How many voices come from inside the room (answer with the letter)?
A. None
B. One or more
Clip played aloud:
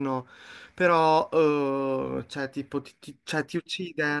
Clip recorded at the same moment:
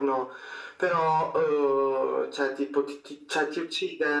A